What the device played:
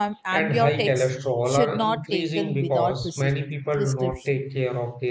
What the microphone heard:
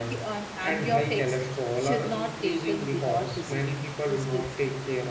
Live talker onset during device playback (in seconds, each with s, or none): none